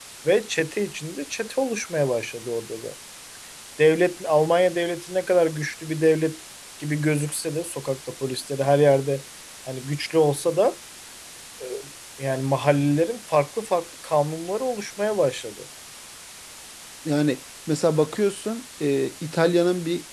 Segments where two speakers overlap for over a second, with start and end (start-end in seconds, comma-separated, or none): none